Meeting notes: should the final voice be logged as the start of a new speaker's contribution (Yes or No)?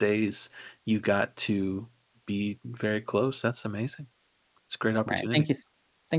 Yes